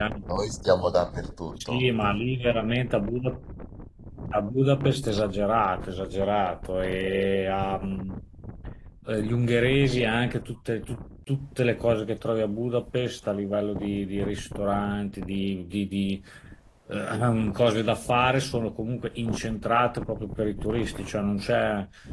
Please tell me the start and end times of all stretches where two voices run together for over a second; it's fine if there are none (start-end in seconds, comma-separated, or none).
none